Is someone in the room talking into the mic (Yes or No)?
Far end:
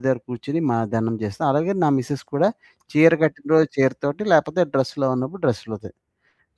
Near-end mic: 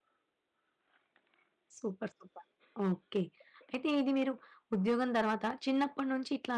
Yes